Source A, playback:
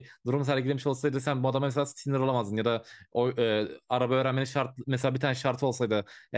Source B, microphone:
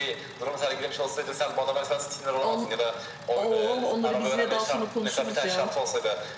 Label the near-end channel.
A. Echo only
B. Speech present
B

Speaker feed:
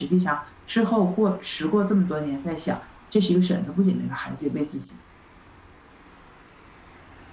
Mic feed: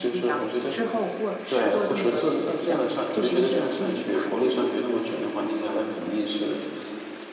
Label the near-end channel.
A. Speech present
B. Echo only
A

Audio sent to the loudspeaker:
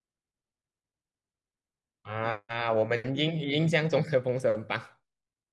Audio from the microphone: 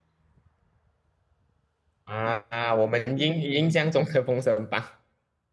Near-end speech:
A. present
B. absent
B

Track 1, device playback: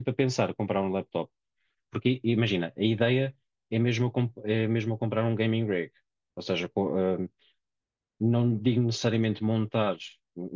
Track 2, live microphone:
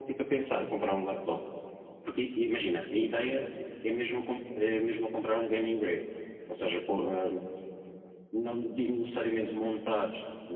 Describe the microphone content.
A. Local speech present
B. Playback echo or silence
B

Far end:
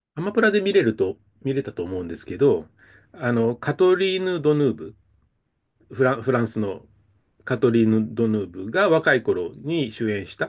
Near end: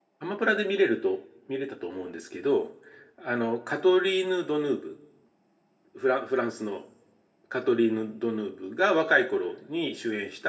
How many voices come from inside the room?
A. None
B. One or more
A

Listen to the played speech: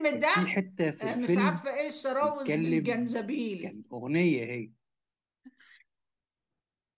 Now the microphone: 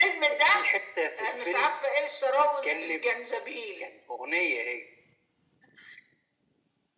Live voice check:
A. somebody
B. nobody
B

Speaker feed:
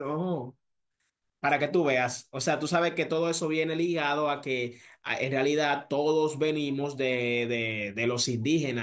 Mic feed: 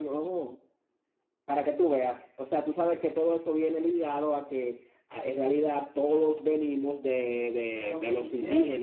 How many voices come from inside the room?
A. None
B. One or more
B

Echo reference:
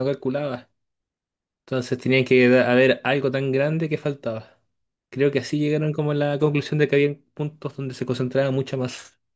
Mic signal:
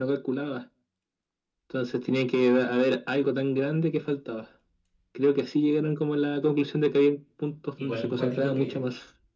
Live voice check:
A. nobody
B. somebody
B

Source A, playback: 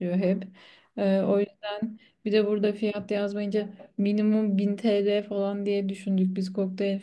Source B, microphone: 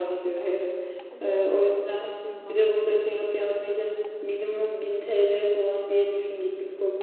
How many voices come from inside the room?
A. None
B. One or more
B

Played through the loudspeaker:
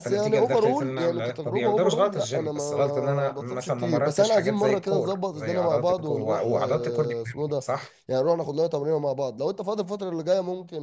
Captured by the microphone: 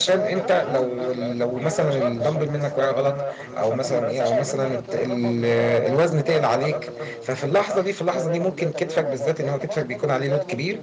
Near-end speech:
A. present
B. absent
A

